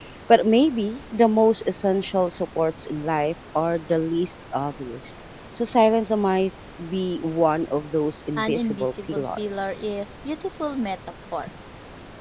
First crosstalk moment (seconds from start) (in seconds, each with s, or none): 8.4 s